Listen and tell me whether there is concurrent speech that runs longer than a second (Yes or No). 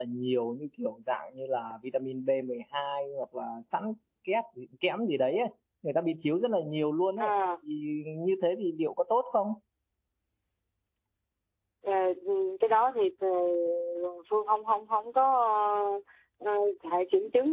No